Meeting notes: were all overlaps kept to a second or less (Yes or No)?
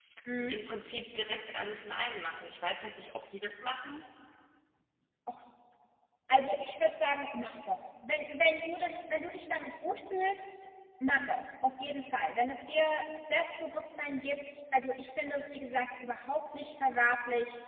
Yes